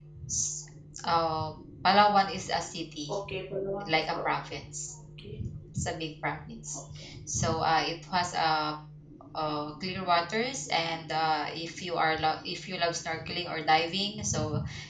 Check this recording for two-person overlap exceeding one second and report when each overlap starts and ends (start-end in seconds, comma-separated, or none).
none